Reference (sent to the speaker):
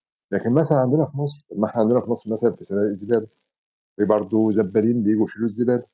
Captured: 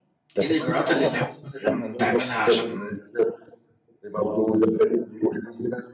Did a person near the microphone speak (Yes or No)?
Yes